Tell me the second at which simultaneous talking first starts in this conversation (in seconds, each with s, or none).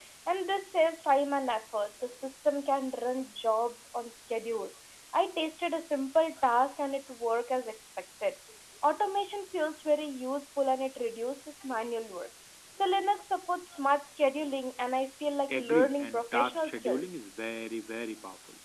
15.5 s